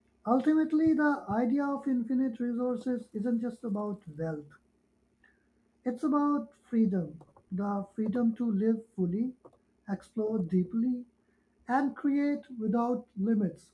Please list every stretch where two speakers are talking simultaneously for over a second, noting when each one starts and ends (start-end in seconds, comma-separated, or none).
none